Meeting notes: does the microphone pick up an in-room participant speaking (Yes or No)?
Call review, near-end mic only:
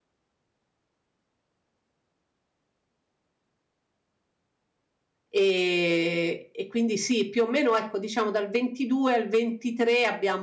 Yes